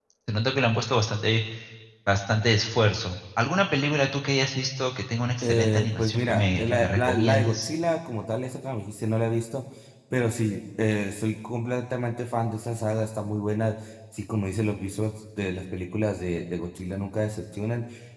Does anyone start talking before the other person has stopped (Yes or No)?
Yes